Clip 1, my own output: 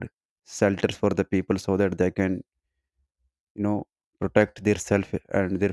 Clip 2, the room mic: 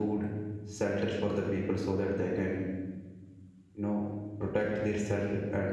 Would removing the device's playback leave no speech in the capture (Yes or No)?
Yes